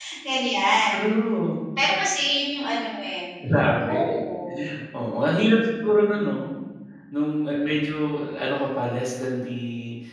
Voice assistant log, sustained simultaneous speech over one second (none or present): none